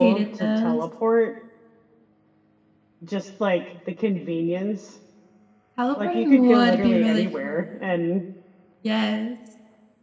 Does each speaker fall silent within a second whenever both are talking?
No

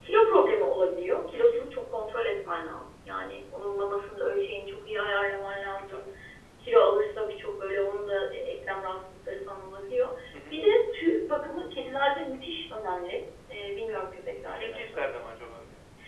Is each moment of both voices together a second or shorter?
Yes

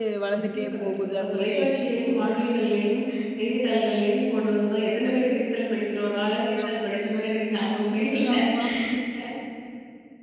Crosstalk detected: Yes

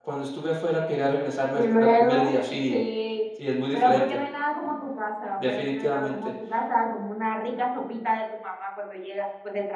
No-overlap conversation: No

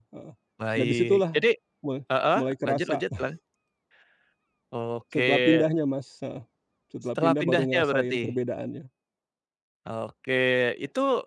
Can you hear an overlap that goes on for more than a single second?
Yes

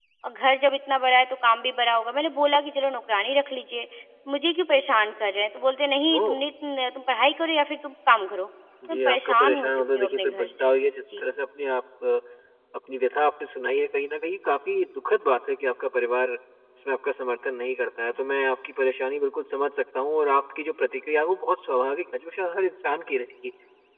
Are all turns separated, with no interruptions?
No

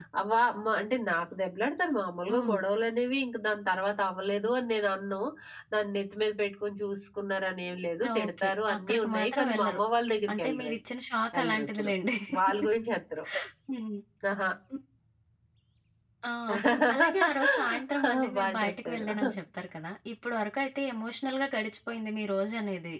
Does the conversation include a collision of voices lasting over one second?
Yes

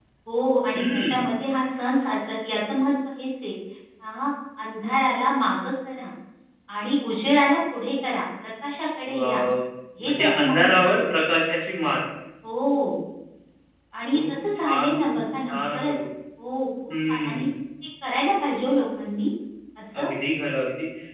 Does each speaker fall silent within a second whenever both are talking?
No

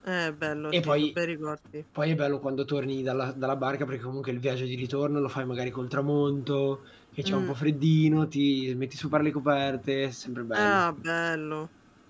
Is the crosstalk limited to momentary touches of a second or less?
Yes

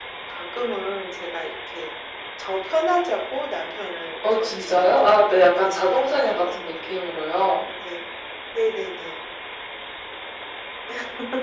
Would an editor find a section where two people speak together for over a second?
Yes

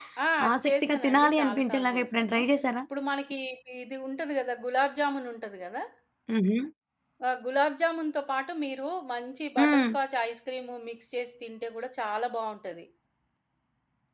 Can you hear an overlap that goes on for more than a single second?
Yes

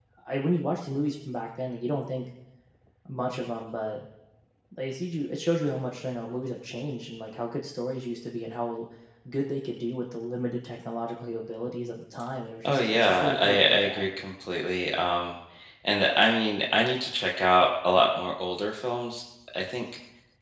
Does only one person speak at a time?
No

